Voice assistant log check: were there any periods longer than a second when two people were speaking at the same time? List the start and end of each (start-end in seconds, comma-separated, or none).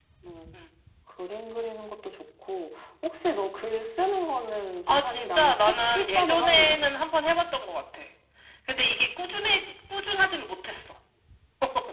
4.9-6.8